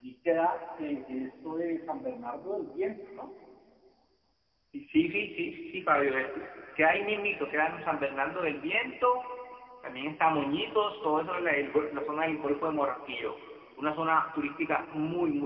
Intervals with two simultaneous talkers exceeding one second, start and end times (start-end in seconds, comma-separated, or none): none